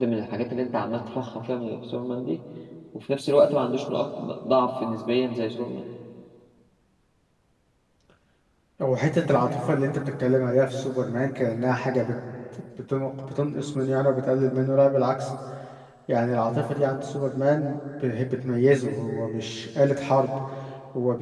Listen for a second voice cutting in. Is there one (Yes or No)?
No